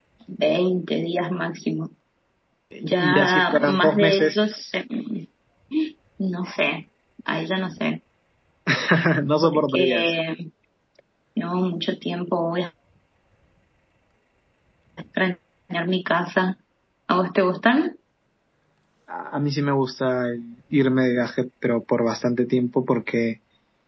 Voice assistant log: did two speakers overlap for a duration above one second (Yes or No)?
Yes